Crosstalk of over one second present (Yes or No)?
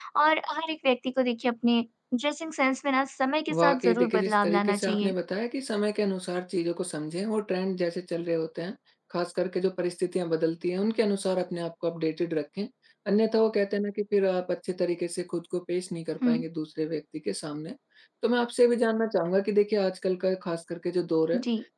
Yes